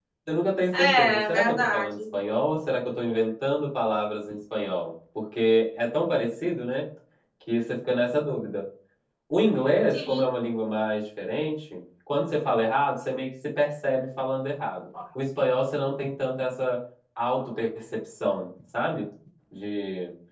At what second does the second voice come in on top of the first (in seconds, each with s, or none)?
0.7 s